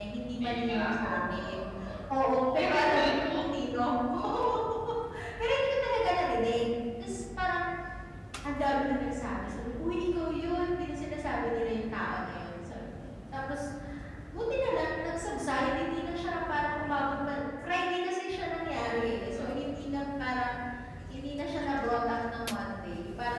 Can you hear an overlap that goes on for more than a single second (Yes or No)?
Yes